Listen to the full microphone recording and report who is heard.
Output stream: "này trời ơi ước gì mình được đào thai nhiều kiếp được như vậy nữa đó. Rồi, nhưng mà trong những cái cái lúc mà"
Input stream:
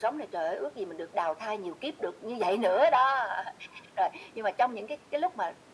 echo only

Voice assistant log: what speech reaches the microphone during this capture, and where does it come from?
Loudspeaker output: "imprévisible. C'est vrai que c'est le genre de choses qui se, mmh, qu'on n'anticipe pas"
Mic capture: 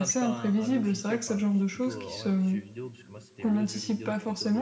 both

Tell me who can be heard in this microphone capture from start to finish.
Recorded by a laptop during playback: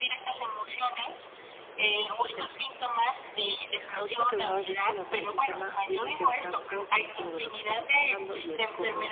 both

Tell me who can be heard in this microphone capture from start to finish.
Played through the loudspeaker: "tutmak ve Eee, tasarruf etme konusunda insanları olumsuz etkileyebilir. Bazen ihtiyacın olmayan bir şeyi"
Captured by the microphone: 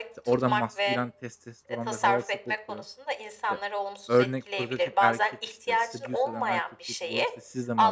both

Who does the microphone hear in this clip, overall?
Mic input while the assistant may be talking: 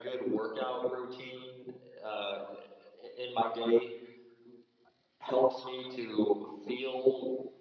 echo only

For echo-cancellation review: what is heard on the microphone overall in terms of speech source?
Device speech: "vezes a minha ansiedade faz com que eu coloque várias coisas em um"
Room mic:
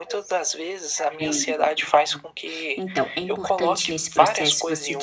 both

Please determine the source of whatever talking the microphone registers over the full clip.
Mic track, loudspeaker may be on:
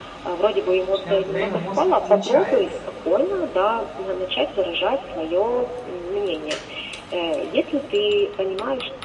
both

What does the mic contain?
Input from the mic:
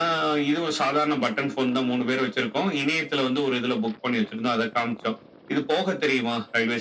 echo only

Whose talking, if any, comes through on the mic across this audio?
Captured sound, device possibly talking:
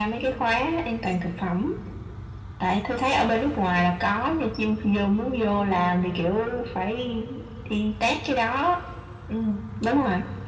echo only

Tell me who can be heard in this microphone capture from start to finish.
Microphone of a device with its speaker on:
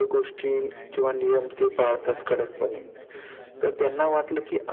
both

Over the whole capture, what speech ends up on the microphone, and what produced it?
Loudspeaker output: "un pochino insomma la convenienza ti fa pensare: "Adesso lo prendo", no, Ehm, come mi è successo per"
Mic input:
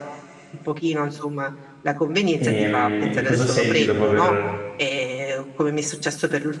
both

